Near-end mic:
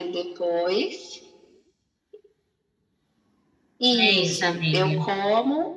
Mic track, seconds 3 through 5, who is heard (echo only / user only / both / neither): both